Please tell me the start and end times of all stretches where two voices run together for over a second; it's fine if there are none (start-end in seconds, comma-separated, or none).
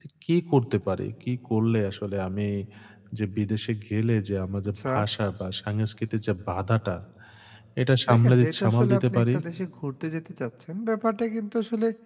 8.1-9.4